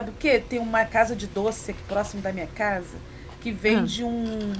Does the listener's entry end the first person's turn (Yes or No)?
No